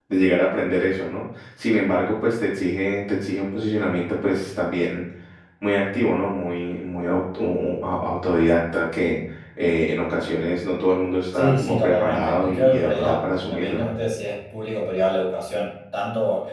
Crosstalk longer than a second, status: present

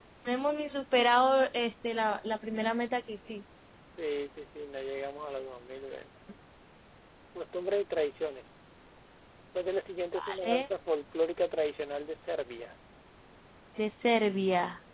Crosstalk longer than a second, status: none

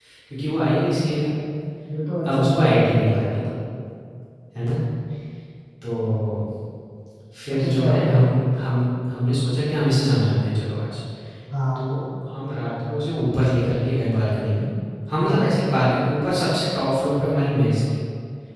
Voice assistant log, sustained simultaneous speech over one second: present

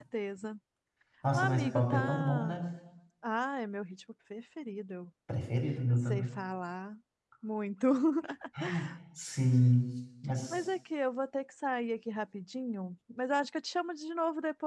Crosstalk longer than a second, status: present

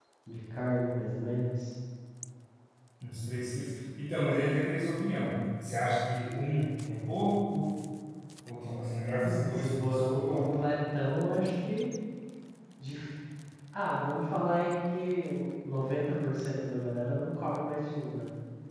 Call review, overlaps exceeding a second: present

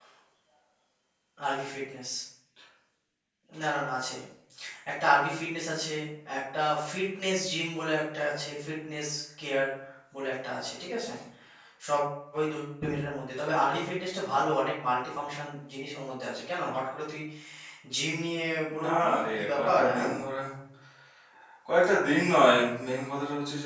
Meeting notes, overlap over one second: present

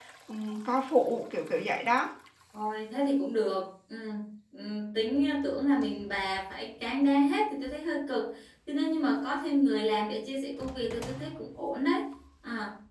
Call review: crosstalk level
none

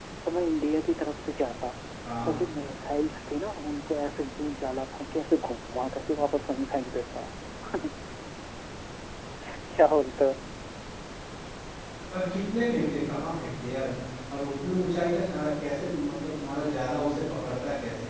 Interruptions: none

